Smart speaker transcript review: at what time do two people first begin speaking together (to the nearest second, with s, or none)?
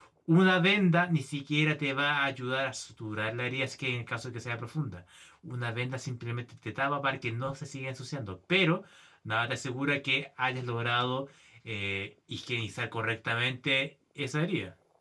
none